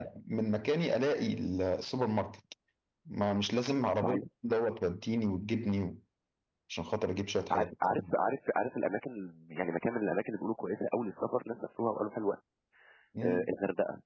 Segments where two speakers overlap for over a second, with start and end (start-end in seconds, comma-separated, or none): none